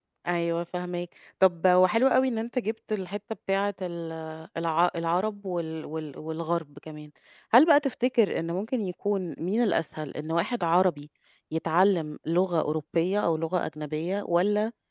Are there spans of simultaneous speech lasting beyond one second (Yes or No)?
No